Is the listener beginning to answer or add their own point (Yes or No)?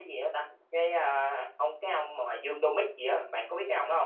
Yes